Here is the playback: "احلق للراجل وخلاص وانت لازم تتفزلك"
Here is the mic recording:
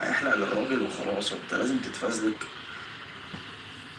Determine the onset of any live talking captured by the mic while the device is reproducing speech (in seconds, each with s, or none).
none